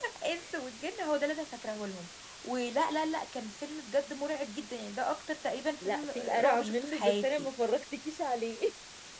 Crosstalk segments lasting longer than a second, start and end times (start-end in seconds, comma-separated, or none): 5.8-7.5